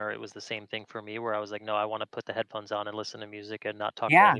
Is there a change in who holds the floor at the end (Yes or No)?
Yes